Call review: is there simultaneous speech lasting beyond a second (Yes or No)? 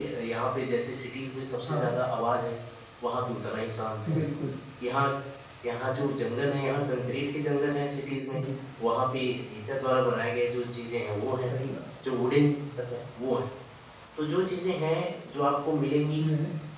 No